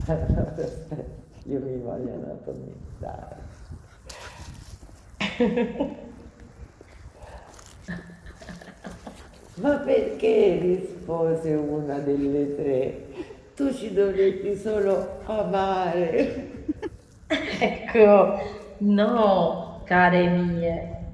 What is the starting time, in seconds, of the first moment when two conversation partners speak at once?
none

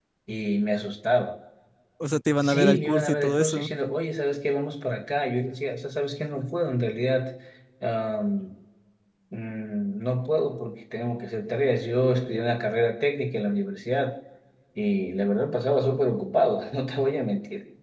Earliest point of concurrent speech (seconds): 2 s

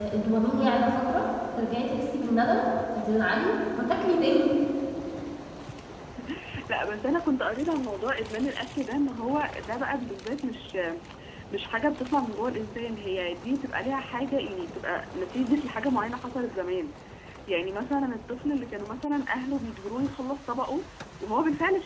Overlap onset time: none

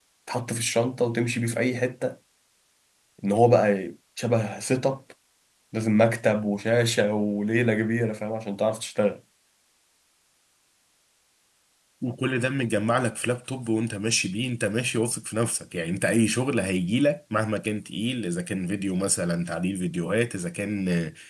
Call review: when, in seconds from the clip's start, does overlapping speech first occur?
none

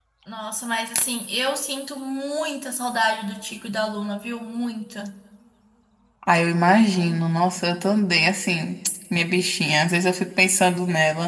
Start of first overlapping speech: none

